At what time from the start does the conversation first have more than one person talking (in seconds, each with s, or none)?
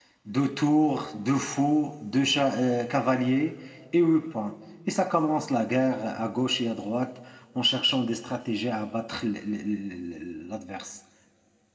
none